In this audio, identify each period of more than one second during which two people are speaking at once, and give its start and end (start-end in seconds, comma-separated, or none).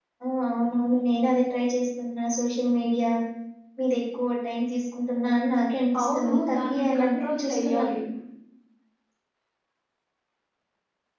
6.0-7.8